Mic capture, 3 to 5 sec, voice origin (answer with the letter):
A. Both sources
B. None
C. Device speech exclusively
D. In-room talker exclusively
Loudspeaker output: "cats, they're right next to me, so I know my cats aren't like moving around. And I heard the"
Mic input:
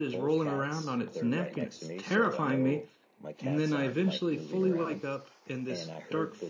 A